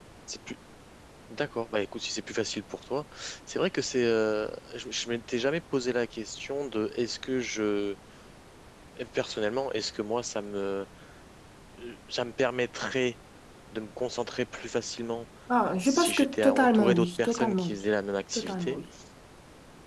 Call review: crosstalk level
present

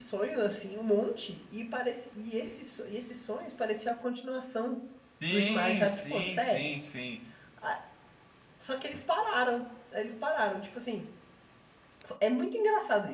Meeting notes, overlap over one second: present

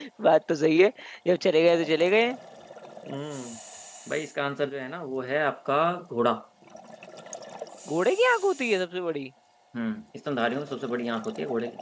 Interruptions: none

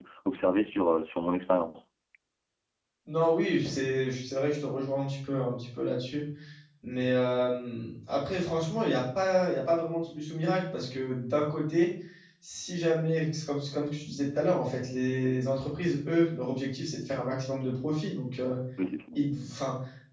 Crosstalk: none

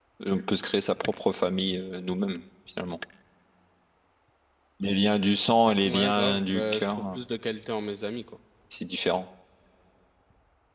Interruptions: present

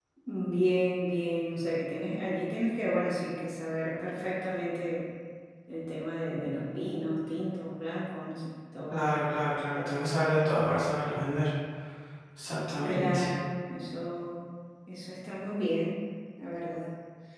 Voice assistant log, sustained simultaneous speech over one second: none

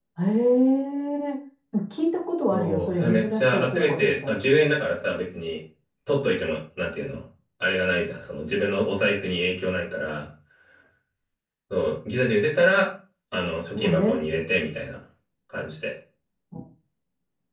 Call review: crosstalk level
present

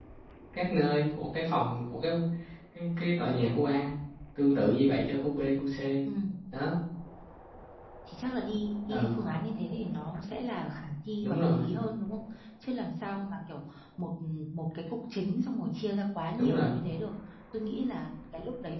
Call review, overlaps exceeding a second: none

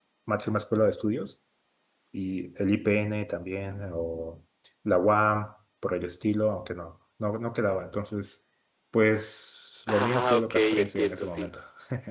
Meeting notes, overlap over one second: present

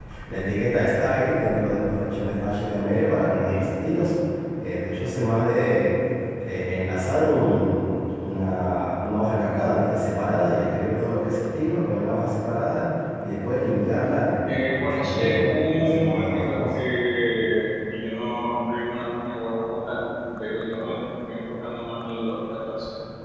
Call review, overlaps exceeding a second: present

